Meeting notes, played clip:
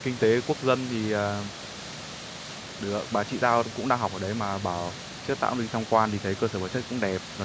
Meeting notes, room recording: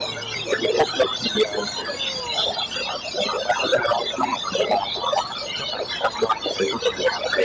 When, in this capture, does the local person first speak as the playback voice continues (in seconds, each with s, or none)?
none